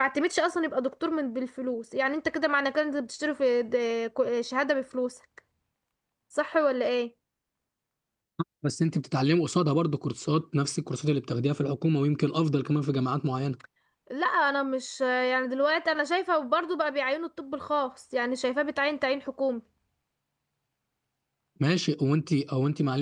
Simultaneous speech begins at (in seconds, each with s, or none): none